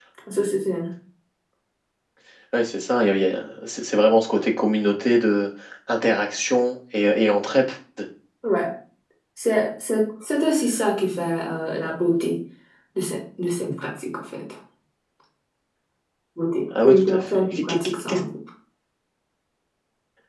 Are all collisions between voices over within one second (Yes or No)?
No